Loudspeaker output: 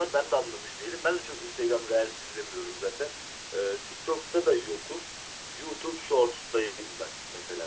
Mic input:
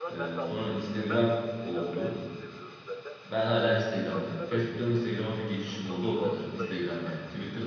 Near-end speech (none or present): present